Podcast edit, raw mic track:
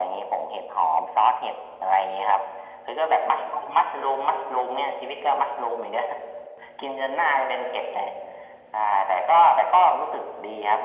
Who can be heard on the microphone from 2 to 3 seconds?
echo only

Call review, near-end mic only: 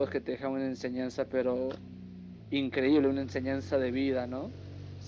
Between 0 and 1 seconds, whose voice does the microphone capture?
echo only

